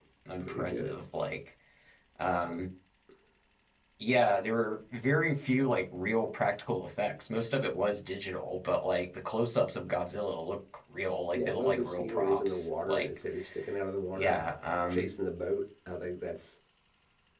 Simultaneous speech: Yes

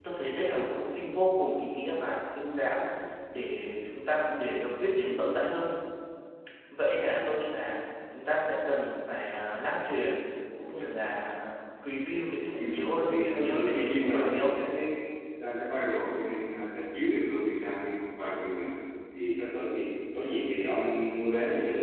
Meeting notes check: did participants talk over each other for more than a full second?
Yes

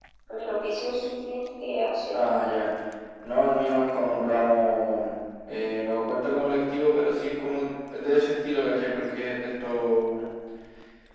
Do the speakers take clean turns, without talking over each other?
Yes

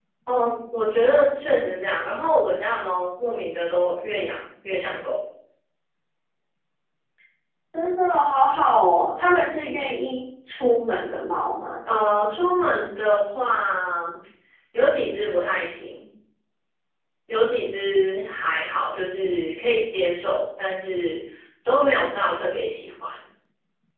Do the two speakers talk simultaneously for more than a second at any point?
No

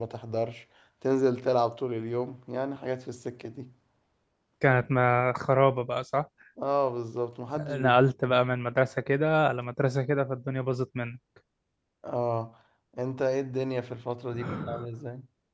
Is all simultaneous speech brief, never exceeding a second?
Yes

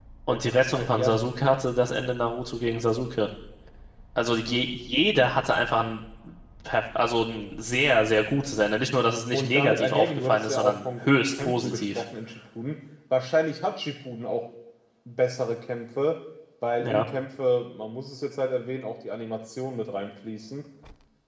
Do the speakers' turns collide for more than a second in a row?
Yes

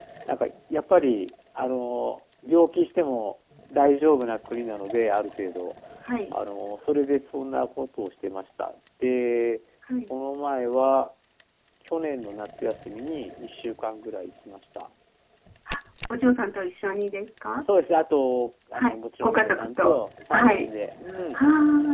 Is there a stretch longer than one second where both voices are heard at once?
Yes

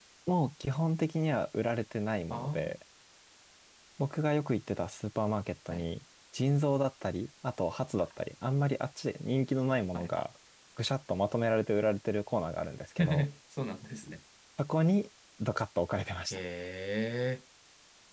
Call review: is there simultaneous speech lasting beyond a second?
No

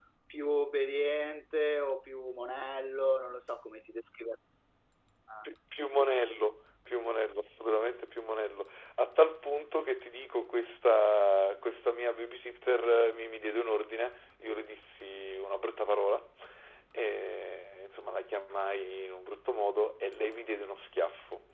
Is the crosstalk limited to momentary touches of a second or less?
Yes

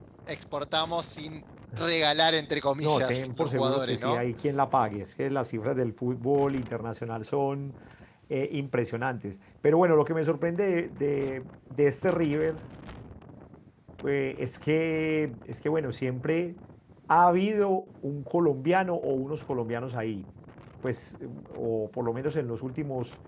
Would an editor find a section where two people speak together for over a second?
Yes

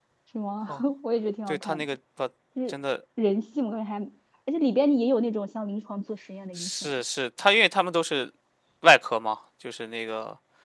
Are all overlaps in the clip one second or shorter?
Yes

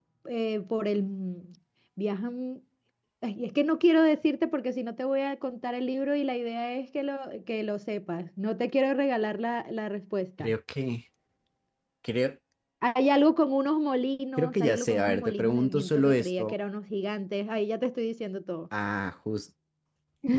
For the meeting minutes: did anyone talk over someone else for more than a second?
Yes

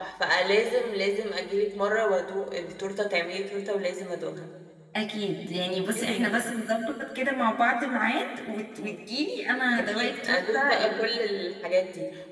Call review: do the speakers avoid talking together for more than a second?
No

